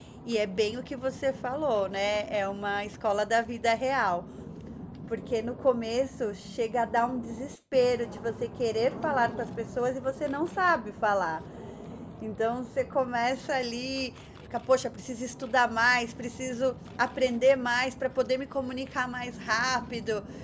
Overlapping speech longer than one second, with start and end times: none

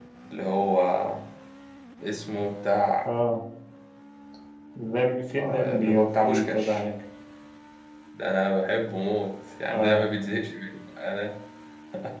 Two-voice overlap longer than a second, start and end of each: 5.4-6.8

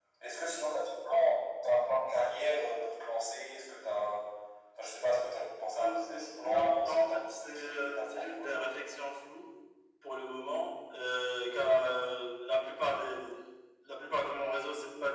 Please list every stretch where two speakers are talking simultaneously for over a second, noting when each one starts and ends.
5.8-8.5

